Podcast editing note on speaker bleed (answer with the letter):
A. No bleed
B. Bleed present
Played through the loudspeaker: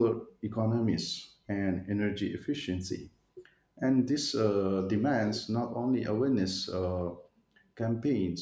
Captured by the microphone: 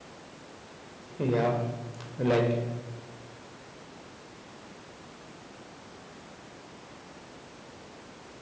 A